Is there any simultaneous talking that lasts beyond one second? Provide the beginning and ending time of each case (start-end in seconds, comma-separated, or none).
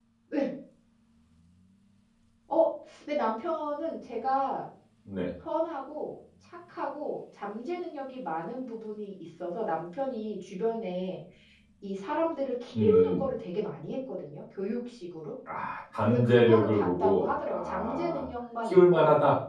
16.0-18.2